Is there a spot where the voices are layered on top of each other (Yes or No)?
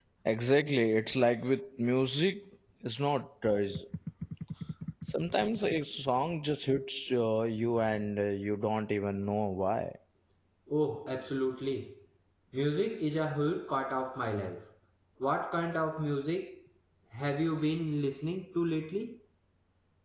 No